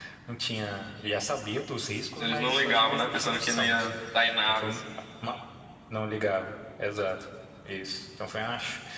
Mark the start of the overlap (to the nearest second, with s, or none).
2 s